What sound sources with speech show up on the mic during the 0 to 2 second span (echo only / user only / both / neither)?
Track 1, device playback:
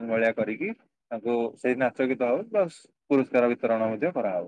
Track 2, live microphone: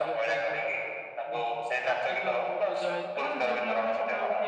both